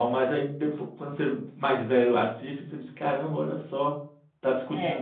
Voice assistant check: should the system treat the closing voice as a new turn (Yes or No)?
Yes